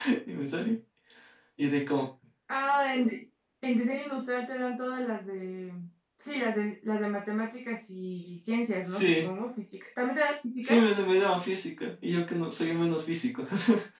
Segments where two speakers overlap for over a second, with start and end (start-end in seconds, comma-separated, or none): none